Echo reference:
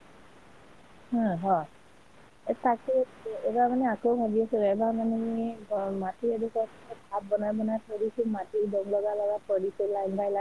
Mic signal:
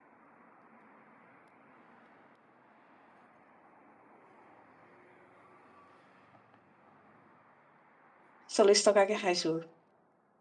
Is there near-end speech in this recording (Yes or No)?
Yes